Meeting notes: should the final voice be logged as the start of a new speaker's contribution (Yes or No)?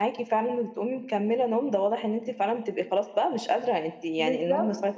No